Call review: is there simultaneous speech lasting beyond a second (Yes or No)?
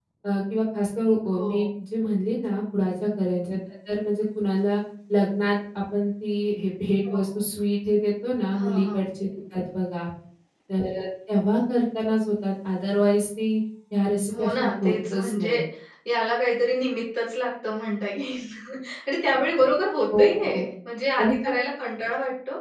Yes